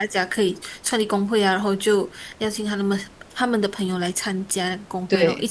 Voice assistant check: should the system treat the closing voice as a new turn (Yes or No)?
Yes